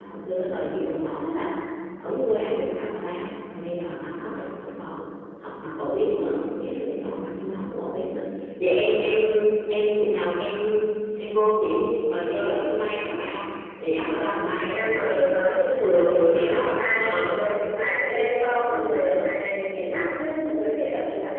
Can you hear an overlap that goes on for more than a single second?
Yes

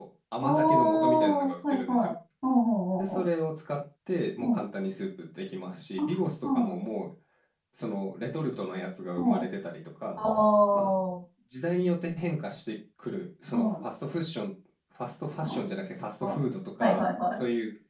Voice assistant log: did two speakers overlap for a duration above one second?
Yes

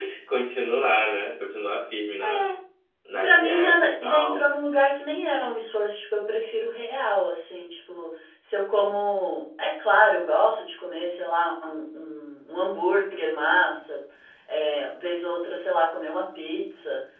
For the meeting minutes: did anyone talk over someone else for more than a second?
Yes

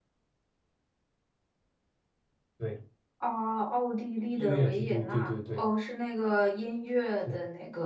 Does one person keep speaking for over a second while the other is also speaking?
Yes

